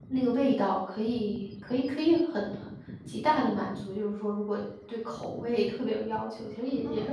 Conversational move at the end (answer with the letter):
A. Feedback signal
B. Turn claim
A